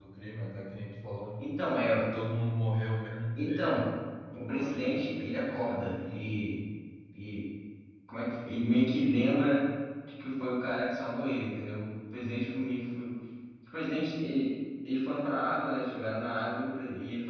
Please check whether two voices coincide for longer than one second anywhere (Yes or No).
Yes